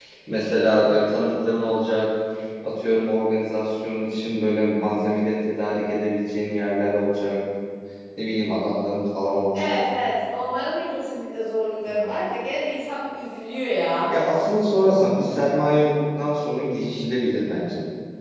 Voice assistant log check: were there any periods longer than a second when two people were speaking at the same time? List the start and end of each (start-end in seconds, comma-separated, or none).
none